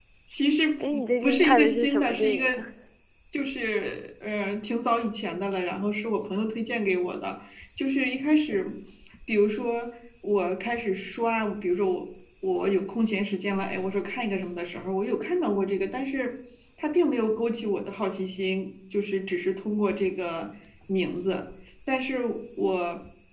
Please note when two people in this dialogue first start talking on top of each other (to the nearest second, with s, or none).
1 s